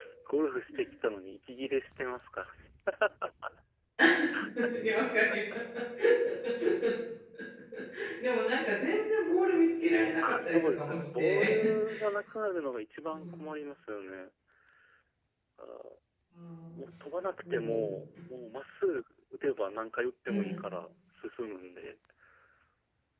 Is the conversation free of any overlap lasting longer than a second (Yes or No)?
No